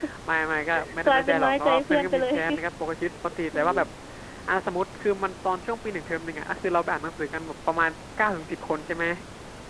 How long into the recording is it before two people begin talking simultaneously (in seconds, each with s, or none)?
1.0 s